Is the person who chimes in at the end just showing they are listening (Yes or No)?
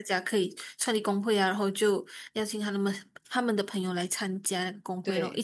No